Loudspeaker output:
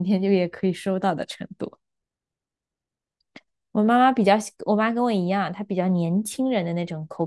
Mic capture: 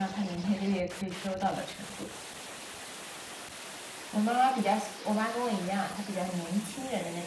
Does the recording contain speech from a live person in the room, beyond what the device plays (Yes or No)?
No